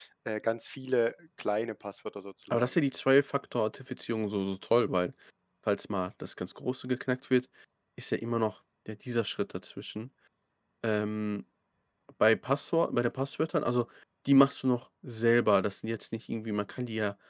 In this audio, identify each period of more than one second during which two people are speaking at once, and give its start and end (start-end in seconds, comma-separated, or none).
none